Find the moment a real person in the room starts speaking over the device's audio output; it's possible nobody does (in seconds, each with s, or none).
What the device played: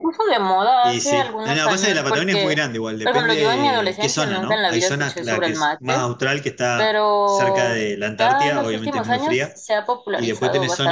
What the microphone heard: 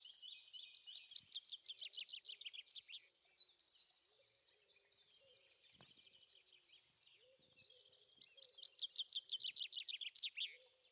none